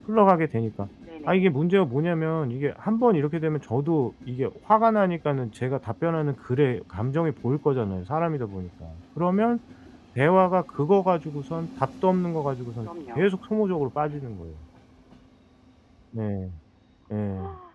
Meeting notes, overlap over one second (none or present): none